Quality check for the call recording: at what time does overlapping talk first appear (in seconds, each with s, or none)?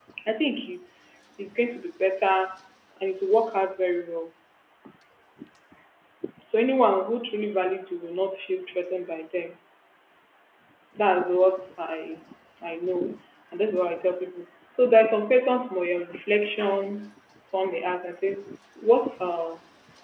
none